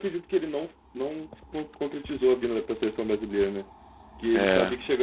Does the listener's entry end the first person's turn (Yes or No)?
No